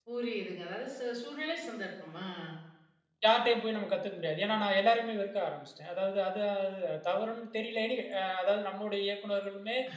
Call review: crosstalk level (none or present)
none